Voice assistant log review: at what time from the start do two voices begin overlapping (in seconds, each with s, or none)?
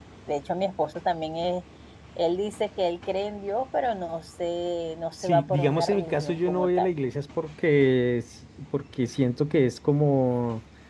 5.2 s